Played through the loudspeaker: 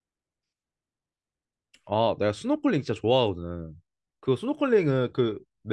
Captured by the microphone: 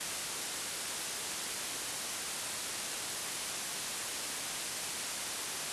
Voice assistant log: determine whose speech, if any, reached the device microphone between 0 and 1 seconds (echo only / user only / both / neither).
neither